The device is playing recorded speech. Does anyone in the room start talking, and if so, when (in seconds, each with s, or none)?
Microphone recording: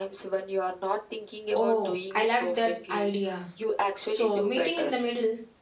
1.5 s